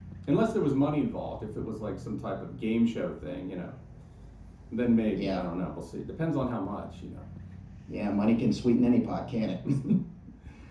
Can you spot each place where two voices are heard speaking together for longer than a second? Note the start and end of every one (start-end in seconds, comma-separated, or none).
none